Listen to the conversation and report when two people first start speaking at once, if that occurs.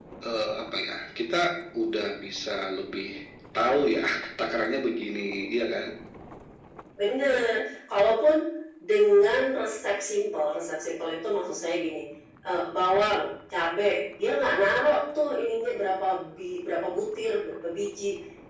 none

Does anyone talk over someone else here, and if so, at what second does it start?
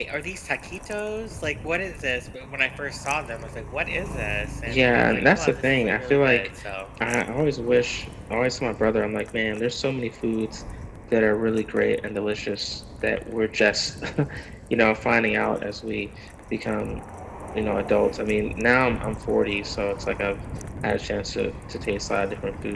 4.7 s

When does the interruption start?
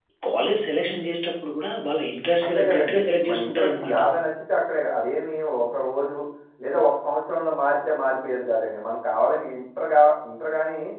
2.4 s

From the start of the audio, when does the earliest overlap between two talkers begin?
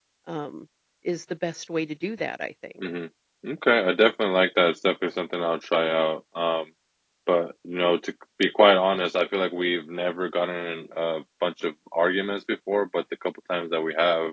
none

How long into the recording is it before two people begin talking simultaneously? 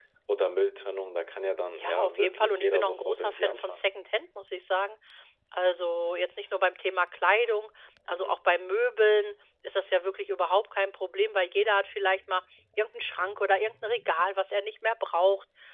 1.8 s

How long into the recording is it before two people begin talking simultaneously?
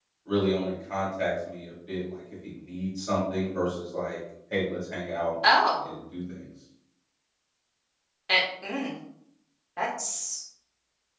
none

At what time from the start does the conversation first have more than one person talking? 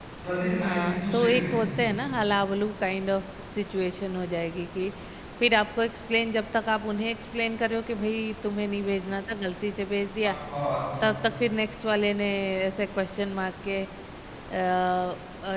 0.6 s

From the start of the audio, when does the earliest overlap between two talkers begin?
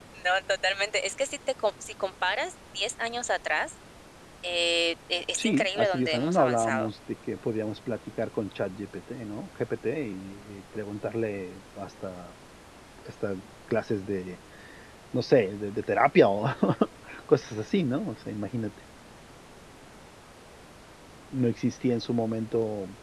5.4 s

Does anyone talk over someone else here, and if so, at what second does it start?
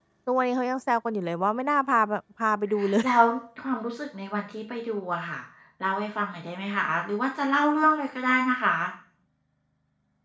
none

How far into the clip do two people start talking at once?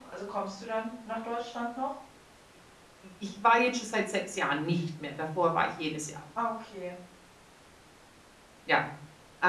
none

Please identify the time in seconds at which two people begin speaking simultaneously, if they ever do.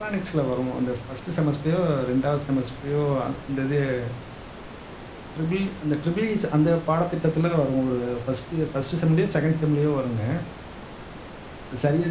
none

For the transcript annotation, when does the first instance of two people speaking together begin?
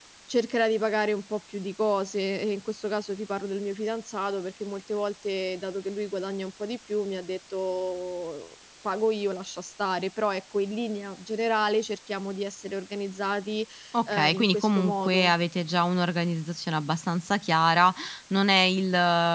14.1 s

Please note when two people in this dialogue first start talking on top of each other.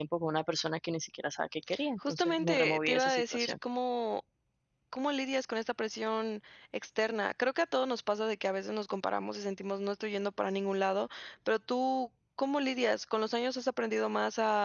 2.0 s

